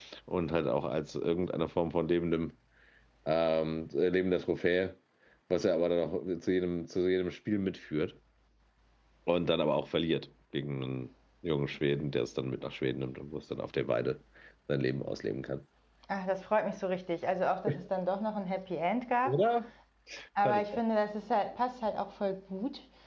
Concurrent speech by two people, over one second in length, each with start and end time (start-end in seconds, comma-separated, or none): none